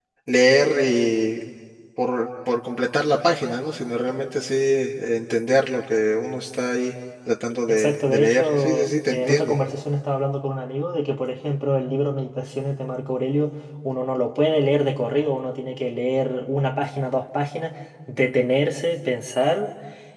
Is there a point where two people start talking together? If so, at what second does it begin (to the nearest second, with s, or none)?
8 s